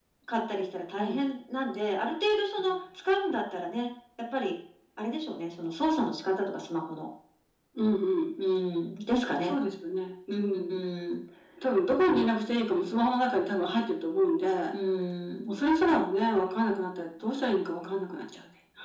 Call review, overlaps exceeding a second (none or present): none